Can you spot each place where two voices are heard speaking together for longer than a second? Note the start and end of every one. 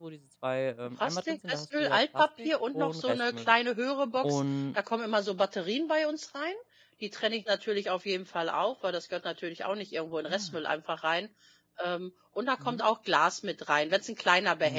1.0-3.5

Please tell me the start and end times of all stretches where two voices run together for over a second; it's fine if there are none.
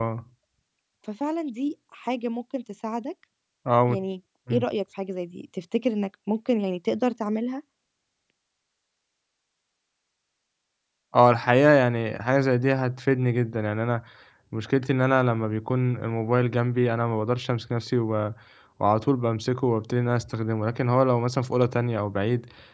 none

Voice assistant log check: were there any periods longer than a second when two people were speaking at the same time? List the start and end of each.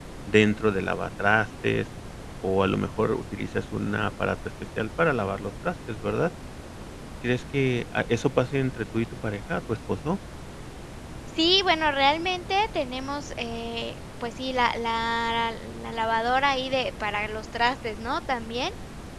none

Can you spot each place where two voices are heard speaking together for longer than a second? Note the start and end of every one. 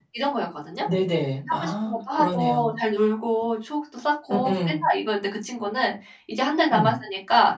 1.5-2.7

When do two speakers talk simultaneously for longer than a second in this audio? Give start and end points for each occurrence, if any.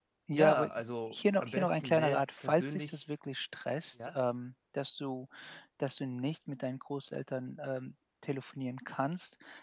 1.1-3.0

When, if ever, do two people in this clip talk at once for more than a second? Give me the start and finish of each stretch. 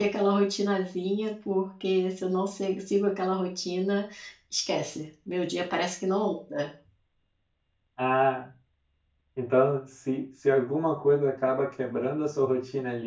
none

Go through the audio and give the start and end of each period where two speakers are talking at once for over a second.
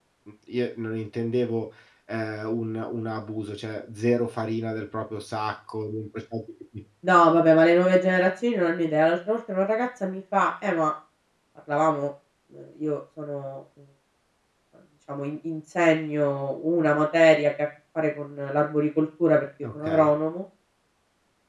none

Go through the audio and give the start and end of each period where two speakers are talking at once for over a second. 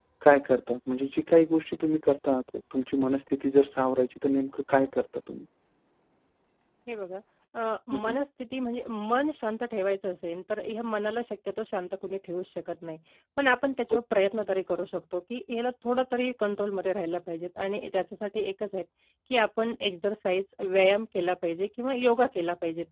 none

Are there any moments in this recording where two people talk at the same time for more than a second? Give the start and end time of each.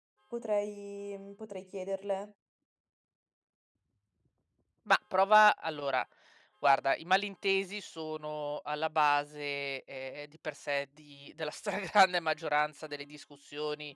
none

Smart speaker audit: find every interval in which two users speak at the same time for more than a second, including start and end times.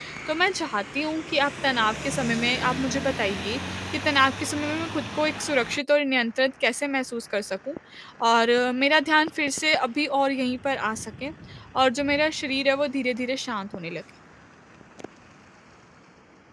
none

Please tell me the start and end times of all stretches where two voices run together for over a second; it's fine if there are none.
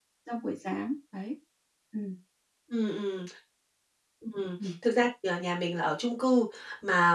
none

